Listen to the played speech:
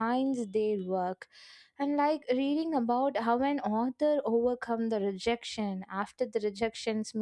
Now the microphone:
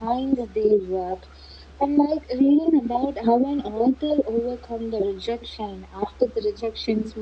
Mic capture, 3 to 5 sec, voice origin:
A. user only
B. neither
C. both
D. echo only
D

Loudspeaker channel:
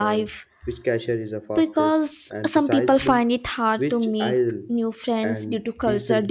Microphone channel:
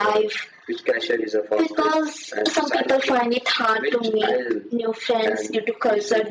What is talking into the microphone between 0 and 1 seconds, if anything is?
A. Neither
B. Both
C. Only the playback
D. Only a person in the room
C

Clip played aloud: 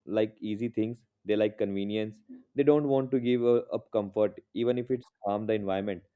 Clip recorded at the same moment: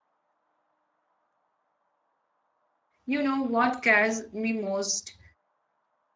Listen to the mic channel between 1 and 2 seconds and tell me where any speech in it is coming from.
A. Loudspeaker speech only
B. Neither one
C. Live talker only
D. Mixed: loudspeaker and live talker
B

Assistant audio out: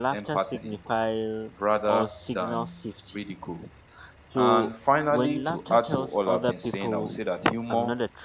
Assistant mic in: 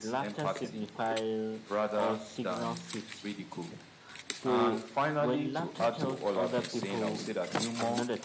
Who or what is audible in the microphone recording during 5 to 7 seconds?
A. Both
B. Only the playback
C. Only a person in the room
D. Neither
B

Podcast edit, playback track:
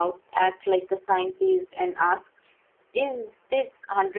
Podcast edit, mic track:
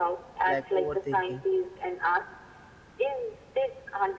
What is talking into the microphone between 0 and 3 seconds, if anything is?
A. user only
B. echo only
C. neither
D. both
D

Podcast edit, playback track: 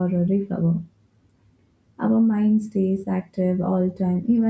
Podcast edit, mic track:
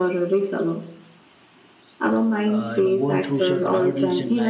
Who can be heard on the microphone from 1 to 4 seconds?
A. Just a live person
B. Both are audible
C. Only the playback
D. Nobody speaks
B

